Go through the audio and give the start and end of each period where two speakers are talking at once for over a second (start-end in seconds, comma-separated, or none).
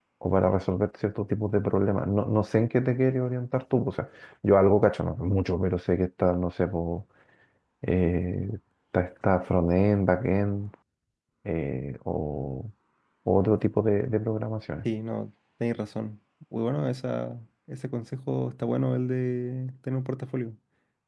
none